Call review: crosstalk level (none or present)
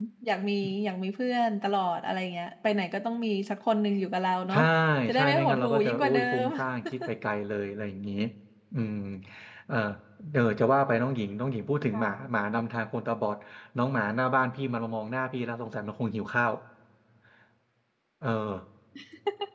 present